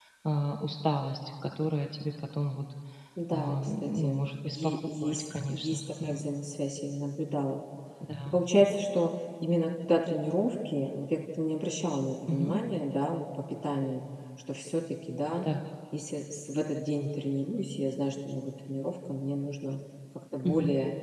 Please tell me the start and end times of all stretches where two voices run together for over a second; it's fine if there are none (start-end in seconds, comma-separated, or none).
3.3-6.3